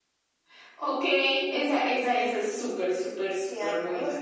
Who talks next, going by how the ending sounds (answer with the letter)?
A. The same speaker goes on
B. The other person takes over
B